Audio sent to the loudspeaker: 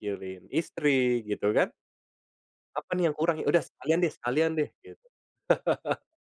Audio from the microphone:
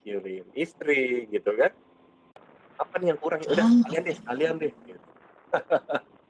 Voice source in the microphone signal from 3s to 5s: both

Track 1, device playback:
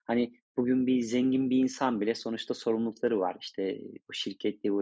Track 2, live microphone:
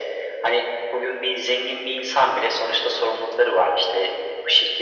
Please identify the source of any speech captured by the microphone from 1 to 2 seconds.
echo only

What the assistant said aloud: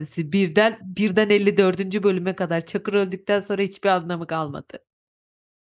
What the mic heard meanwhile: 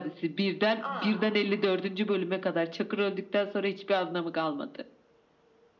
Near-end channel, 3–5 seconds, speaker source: echo only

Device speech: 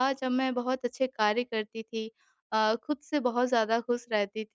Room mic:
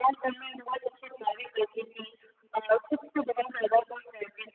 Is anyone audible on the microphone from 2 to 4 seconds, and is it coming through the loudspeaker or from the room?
echo only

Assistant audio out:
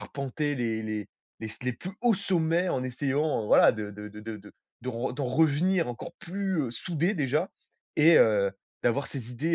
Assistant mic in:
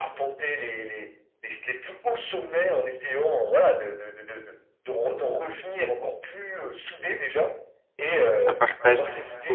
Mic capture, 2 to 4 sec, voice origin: echo only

